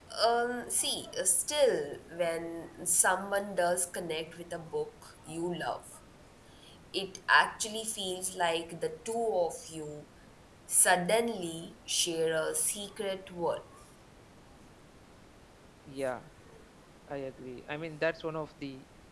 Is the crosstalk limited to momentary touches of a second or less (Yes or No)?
Yes